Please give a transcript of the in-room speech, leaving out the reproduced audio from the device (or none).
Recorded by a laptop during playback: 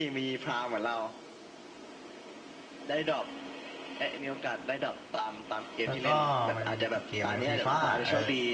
แล้วก็มันมีกี่เกมหนึ่งฟีฟ่าเออ